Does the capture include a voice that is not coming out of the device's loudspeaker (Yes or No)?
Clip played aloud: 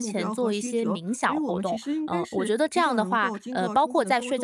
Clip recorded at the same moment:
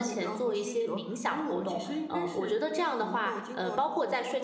No